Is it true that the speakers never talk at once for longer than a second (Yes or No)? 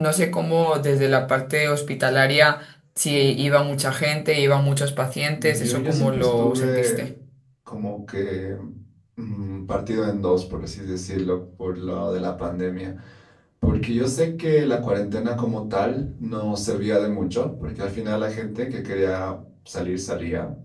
No